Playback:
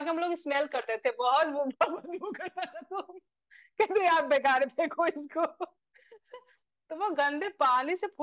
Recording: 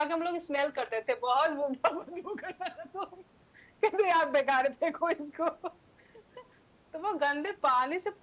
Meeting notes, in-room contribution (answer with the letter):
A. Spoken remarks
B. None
B